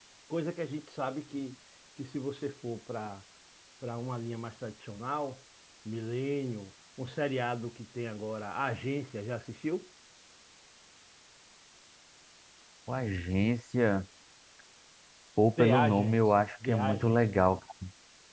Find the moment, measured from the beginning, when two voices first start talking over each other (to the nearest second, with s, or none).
16 s